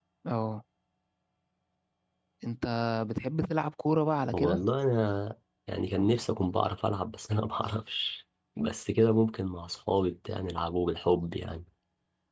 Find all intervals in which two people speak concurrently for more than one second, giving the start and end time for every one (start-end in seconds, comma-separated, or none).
none